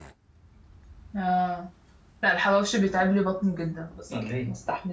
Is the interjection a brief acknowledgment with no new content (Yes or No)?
Yes